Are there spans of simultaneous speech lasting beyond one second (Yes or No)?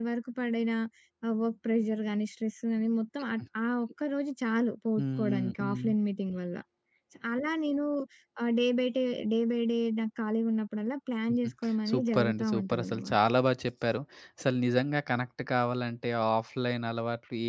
Yes